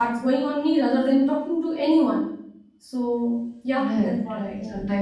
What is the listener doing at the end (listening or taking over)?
taking over